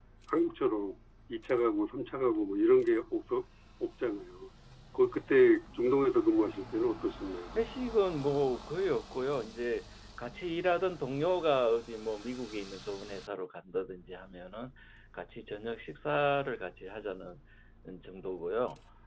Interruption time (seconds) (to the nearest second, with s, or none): none